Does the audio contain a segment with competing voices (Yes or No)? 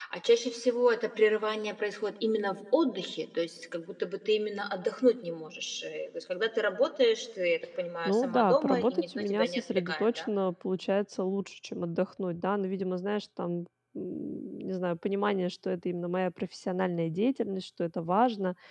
Yes